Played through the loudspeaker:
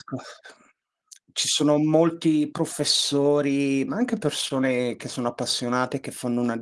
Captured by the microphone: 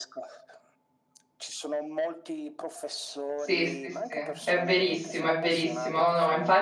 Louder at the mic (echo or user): user